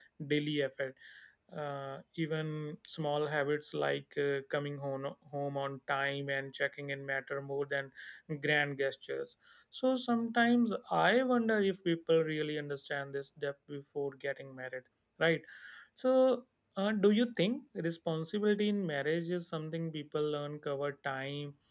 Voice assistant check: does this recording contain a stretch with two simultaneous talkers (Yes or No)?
No